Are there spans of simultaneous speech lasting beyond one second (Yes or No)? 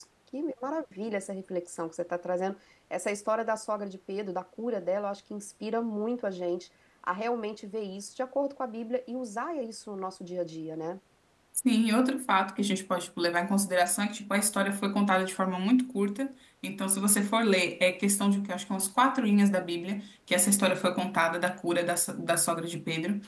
No